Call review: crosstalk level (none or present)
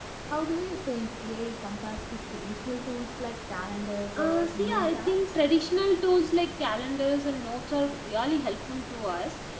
present